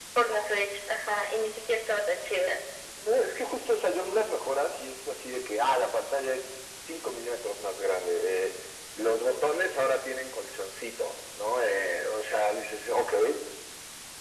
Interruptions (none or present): none